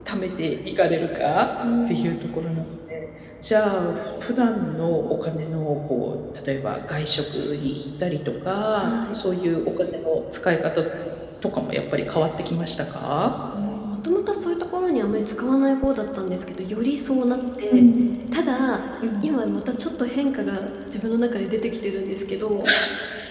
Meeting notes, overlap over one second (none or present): none